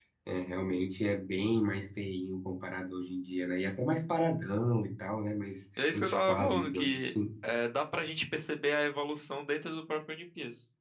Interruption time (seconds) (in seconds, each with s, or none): 5.8 s